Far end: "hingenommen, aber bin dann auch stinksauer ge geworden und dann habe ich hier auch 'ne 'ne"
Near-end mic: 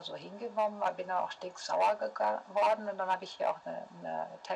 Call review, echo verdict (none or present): present